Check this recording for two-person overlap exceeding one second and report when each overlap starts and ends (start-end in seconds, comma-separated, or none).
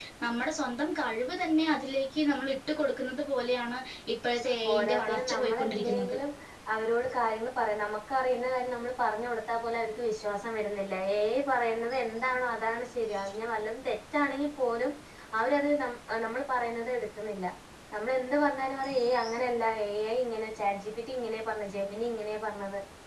4.6-6.2